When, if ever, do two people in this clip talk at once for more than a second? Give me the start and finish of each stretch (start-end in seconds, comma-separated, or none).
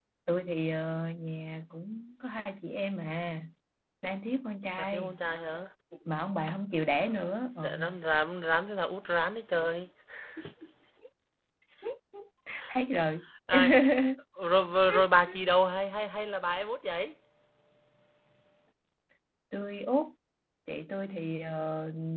none